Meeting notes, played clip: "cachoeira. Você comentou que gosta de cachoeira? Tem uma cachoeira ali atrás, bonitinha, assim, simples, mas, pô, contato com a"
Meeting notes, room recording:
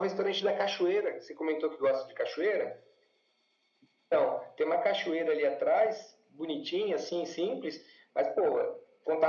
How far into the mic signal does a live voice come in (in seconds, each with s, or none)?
none